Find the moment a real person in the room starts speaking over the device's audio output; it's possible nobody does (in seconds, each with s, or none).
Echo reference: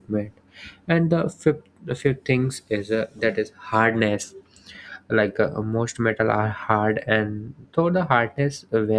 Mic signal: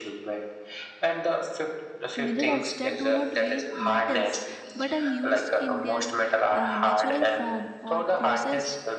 2.2 s